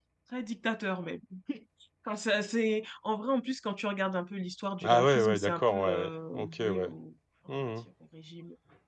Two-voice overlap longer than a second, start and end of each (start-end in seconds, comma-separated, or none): 4.8-6.9